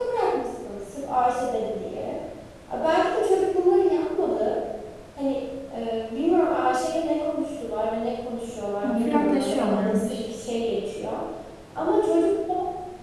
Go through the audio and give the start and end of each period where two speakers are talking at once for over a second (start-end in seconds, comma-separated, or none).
8.8-10.2